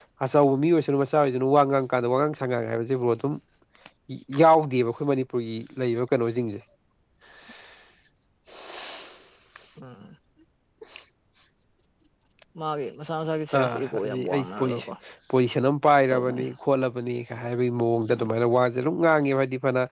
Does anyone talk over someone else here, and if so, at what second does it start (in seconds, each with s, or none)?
13.6 s